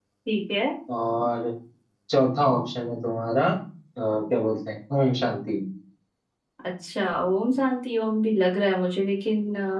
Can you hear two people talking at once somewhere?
No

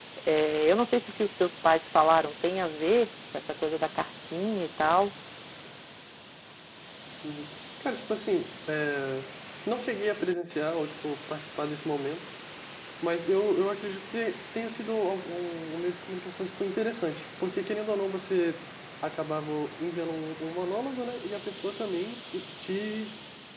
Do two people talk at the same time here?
No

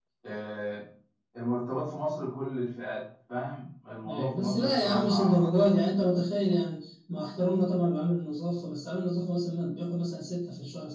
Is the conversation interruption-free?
No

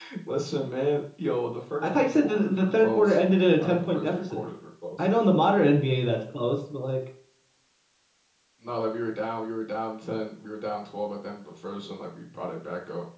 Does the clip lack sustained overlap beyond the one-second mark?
No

